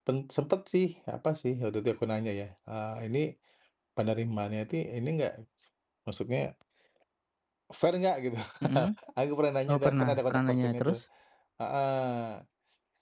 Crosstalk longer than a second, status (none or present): present